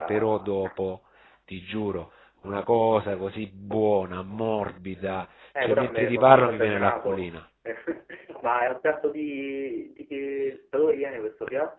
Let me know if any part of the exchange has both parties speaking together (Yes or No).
Yes